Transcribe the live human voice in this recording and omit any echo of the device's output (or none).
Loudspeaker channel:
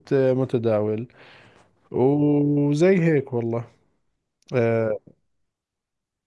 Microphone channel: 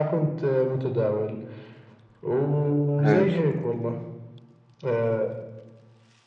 هايل